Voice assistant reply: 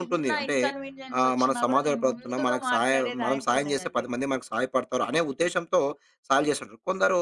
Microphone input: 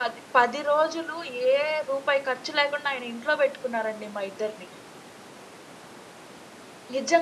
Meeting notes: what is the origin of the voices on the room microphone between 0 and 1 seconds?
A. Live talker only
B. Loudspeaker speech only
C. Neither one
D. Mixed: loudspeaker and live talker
A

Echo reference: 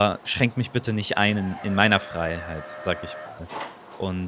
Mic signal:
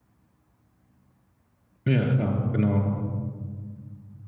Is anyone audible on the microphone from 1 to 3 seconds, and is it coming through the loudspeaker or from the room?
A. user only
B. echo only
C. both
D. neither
A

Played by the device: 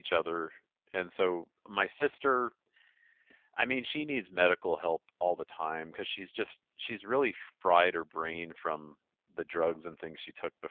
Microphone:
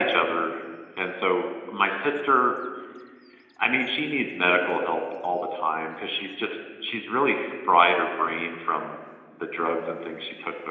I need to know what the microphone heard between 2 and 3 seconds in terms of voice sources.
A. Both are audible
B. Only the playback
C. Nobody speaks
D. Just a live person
B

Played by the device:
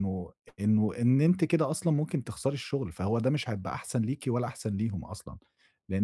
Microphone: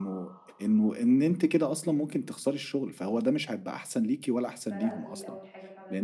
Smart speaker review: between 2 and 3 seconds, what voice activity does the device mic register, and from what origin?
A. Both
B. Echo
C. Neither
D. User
B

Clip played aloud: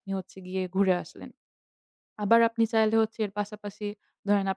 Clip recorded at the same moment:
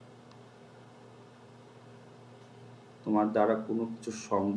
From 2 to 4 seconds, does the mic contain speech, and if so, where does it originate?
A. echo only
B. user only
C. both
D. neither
B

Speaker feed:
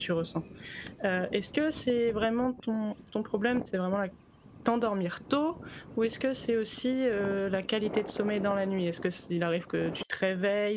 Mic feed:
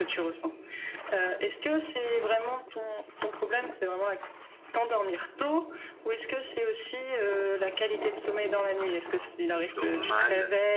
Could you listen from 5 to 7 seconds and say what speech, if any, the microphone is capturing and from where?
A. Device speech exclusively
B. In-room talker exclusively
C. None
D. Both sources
A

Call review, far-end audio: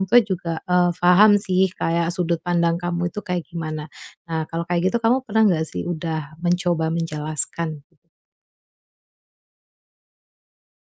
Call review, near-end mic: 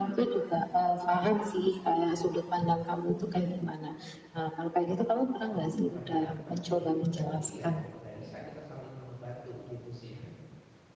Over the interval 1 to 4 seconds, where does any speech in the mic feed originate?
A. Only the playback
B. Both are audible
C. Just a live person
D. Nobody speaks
A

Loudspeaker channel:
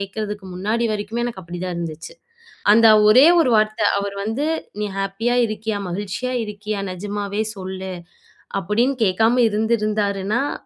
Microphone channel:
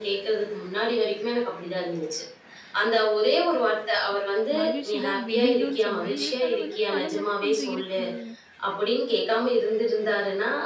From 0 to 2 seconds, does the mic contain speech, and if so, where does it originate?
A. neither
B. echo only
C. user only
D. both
B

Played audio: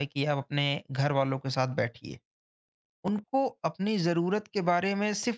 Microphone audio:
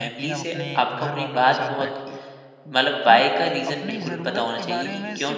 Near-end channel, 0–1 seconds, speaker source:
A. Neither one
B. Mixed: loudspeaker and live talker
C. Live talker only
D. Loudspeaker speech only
B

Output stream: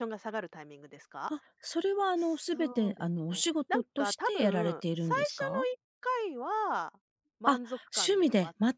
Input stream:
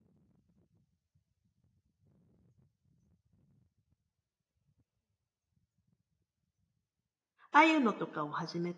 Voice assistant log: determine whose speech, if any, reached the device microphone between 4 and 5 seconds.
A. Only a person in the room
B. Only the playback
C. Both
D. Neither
D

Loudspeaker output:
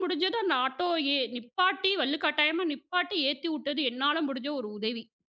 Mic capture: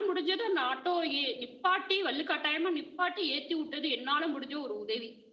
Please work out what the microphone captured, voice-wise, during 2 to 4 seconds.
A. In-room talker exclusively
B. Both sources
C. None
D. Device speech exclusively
D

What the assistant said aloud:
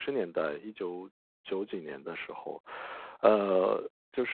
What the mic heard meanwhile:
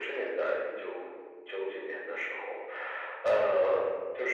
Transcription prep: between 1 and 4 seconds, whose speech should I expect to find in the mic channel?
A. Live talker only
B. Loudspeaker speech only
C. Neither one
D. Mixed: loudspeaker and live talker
B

